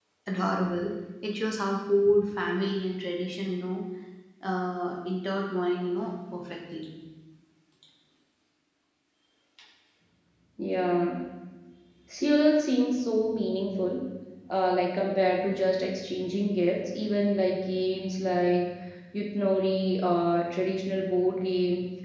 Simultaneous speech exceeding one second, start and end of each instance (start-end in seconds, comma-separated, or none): none